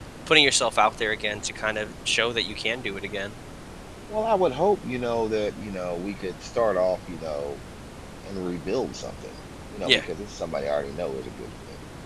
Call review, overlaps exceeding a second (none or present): none